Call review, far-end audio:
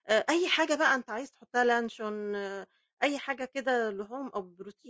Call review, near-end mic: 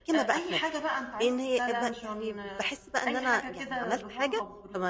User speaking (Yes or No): Yes